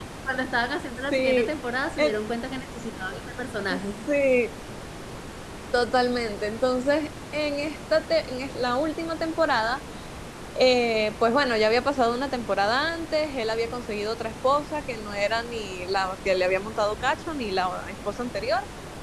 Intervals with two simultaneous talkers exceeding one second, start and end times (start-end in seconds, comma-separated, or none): none